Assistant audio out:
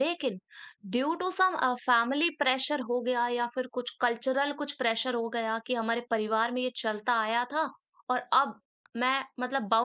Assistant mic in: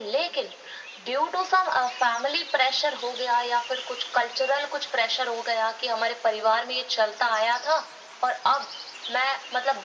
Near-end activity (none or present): none